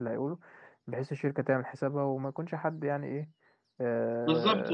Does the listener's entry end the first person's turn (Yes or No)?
Yes